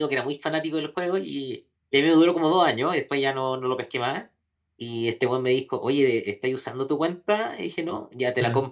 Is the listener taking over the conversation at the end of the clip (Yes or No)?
No